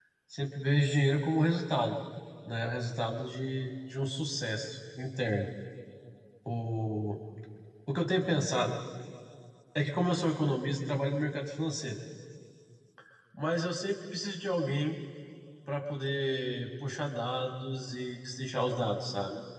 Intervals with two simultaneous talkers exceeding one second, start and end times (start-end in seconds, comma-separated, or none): none